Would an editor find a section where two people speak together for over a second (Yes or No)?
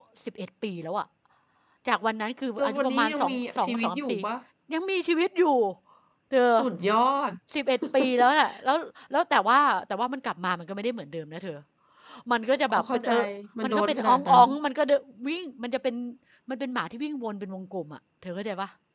Yes